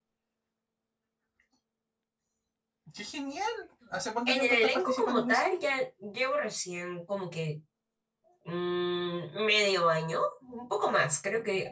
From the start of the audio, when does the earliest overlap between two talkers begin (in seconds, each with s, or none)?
4.3 s